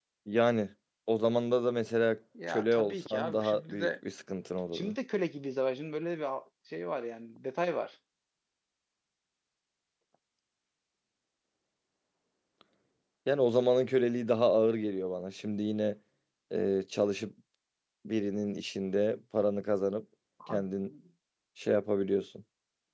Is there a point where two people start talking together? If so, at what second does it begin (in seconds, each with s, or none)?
2.4 s